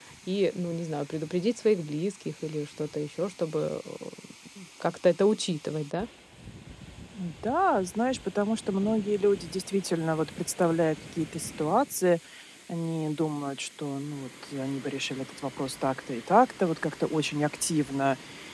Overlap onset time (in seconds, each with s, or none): none